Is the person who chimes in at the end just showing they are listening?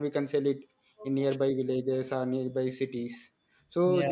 Yes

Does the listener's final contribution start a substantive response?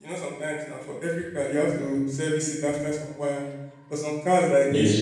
No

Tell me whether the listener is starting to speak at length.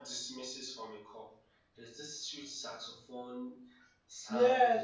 Yes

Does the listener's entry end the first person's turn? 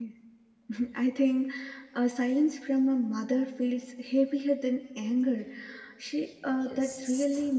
No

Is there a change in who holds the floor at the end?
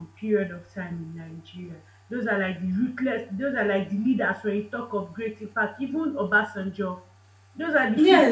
Yes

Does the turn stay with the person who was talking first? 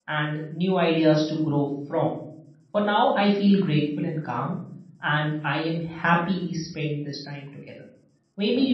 Yes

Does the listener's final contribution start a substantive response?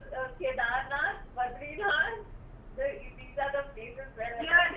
Yes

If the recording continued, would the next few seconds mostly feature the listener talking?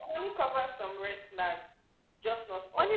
Yes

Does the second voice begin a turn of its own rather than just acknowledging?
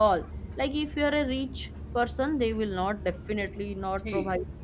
Yes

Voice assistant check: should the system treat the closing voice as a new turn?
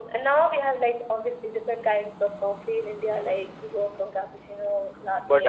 Yes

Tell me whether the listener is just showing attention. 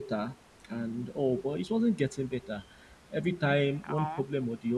Yes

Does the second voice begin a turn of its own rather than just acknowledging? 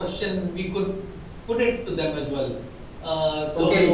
Yes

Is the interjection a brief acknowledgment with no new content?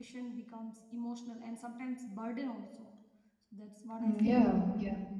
No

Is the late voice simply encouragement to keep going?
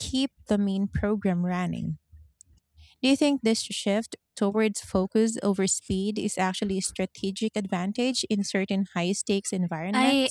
No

